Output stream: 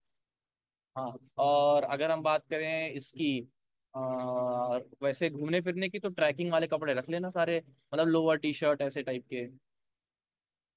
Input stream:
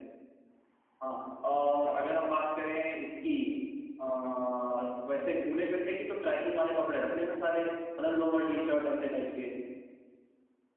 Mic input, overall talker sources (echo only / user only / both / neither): echo only